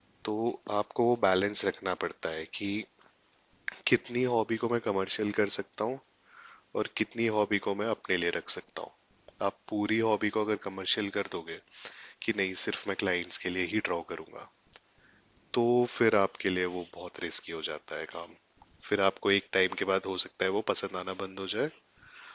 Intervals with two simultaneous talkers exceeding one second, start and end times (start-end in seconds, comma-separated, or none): none